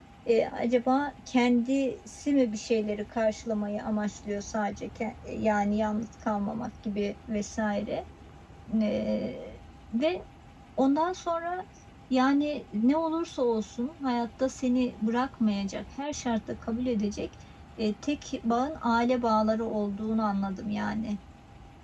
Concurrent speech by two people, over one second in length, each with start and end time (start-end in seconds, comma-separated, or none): none